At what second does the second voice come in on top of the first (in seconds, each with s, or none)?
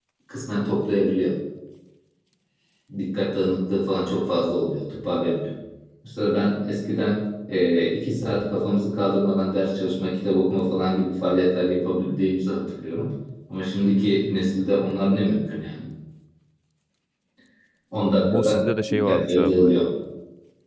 18.2 s